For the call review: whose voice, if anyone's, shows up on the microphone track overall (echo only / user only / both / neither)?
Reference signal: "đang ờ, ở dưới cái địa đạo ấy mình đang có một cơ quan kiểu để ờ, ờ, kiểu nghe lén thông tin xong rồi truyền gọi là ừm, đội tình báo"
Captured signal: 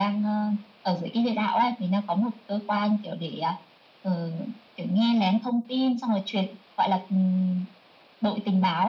echo only